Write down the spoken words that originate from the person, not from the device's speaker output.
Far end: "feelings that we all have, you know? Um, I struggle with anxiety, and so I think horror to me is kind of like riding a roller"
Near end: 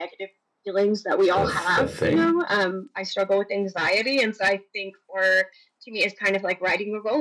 The the thing?

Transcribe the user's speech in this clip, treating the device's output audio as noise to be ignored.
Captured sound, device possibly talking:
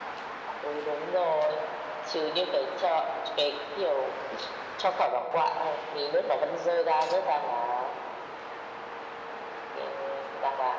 none

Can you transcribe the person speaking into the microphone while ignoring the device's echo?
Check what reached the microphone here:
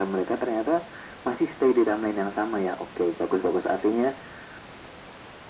none

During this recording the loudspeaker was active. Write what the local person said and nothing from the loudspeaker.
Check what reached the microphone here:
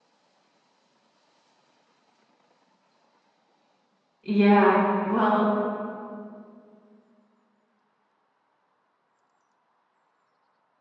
Yeah, well.

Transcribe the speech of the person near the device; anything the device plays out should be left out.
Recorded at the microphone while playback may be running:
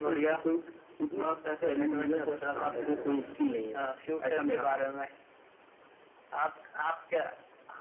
अच्छा अच्छा

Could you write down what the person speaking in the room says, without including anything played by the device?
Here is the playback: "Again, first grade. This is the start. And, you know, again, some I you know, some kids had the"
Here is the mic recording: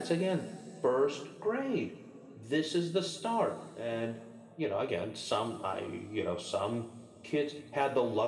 none

